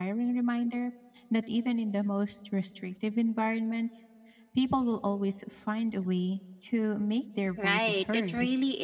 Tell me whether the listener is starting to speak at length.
Yes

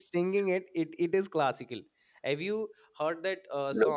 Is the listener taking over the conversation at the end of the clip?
Yes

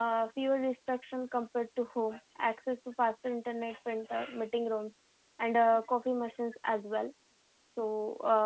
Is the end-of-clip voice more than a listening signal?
No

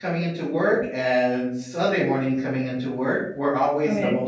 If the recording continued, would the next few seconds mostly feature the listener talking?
No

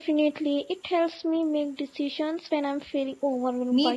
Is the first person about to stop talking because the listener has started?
Yes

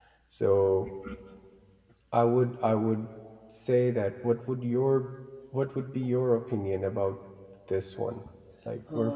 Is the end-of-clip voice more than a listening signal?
Yes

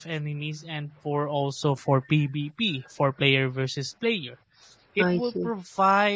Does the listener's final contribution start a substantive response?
No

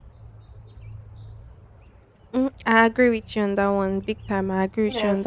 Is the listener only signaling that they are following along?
Yes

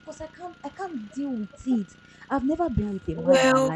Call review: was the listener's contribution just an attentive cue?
Yes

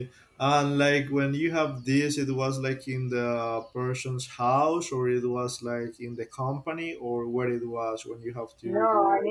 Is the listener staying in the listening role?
No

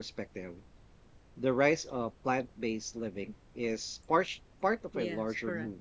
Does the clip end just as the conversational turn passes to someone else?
No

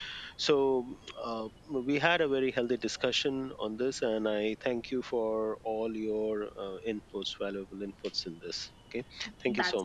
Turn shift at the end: Yes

